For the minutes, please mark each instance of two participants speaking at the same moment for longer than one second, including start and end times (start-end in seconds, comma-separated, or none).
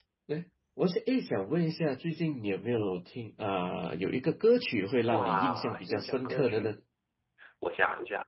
5.1-6.8